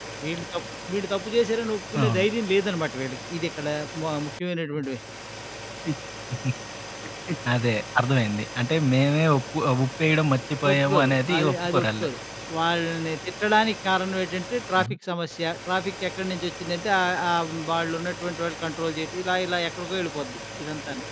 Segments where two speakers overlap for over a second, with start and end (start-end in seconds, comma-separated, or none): 10.7-12.1